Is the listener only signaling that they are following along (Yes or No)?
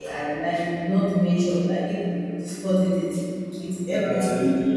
No